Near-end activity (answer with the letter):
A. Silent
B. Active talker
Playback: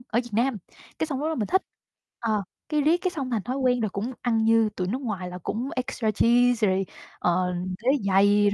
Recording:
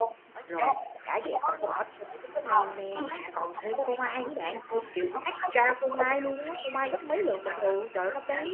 B